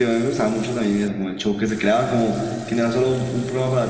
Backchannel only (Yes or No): Yes